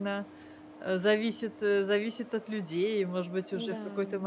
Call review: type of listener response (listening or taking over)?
listening